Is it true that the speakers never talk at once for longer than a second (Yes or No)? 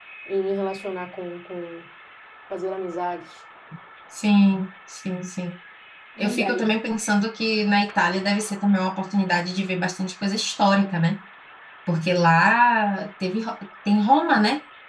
Yes